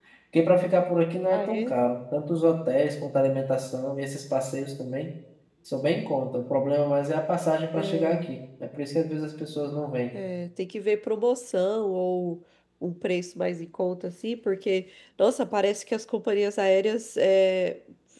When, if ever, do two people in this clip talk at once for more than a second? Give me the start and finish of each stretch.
none

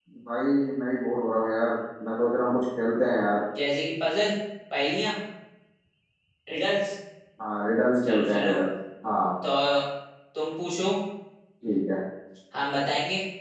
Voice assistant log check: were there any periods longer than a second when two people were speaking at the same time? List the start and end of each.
none

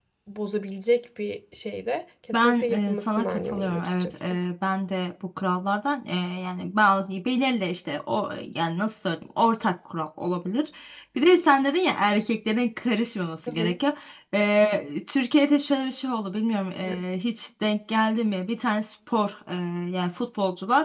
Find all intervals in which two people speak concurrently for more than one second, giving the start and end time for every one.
2.3-4.2

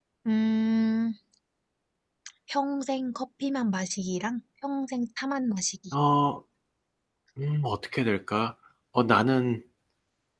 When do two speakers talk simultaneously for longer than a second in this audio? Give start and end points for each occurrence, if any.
none

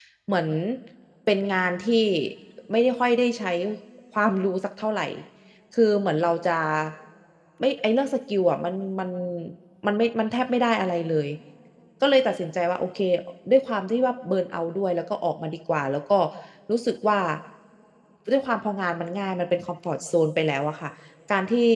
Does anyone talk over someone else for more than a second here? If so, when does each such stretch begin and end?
none

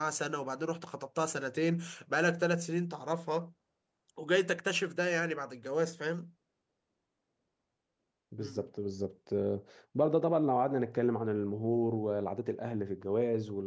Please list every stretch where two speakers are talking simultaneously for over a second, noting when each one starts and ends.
none

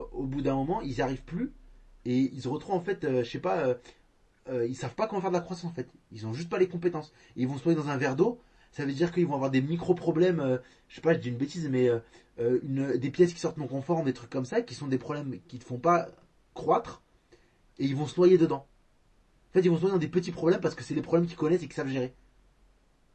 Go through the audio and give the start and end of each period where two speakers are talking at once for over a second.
none

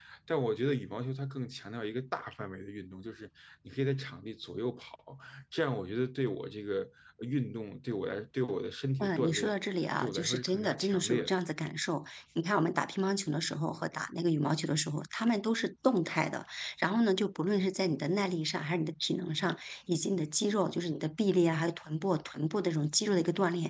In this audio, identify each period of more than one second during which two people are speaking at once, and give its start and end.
10.0-11.3

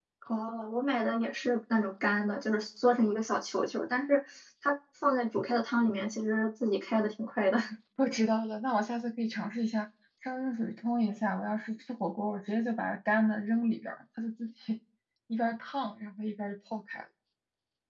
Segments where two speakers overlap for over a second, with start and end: none

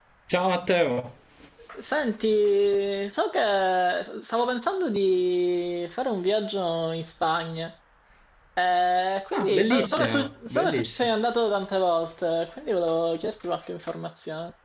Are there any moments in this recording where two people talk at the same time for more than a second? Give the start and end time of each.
9.3-11.1

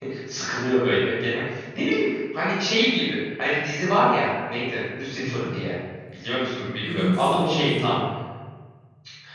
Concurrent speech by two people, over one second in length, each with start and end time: 6.6-7.9

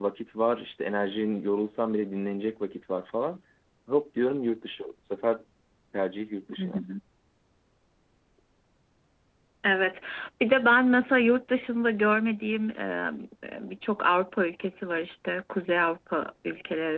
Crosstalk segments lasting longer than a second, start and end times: none

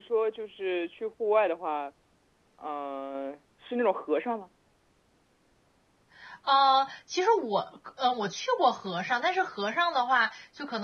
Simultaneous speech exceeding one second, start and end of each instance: none

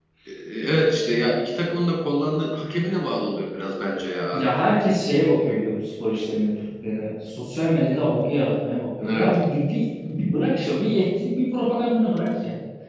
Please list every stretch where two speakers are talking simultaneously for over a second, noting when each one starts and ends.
none

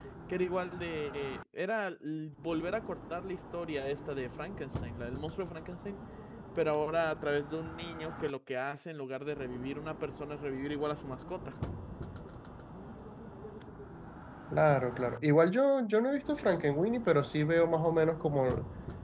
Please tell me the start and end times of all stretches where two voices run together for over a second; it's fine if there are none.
none

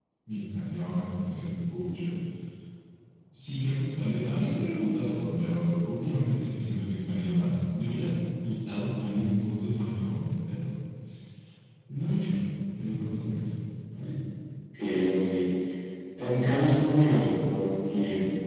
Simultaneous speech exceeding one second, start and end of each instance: none

